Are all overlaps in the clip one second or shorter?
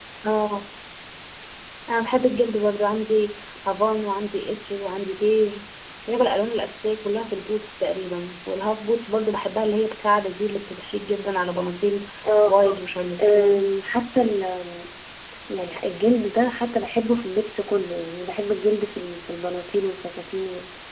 Yes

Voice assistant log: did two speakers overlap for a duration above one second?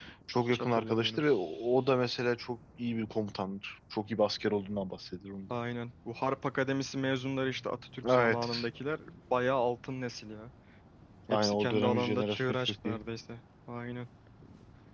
Yes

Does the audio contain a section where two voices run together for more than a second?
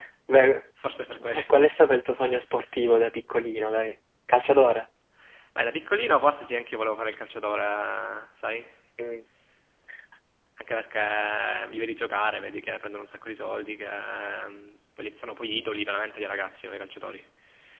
No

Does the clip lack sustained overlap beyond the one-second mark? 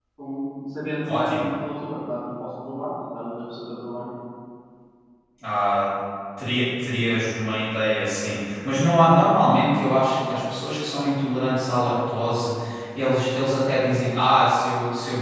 Yes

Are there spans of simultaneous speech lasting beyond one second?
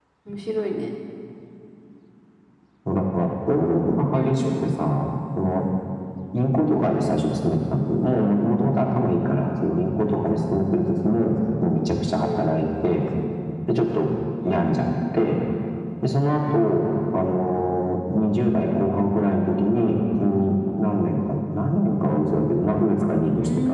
No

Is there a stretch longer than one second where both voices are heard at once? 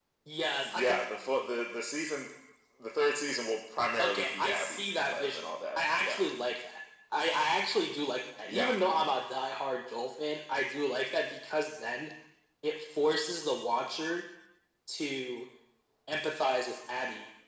Yes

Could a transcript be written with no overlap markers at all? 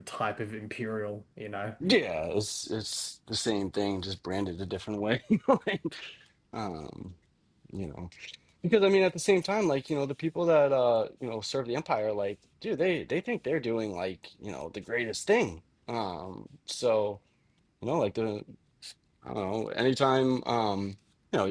Yes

